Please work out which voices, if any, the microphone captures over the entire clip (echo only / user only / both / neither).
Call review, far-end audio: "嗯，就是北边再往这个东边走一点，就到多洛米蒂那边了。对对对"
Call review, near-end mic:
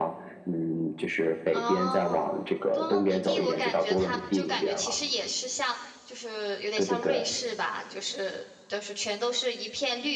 both